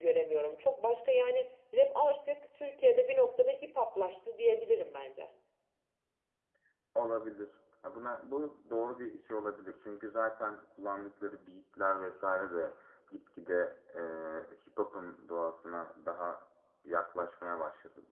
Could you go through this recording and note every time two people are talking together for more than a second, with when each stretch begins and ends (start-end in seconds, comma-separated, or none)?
none